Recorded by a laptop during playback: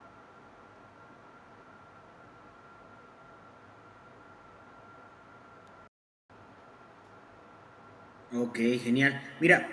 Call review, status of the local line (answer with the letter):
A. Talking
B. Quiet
A